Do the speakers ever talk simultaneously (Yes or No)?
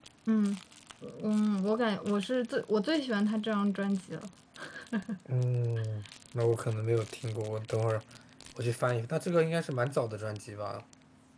No